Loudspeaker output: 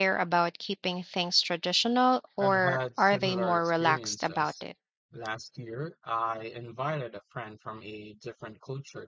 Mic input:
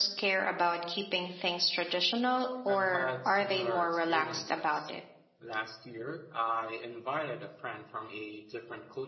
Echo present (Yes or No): Yes